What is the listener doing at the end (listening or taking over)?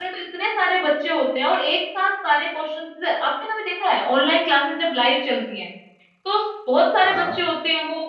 listening